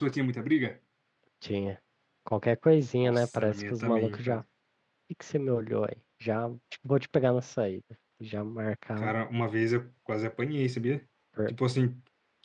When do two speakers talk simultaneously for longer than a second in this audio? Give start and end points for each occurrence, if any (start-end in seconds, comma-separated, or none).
3.0-4.4